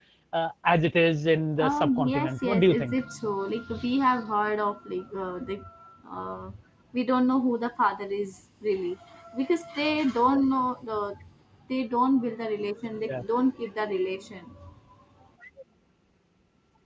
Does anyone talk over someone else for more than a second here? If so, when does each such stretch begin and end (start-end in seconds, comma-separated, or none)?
1.7-3.0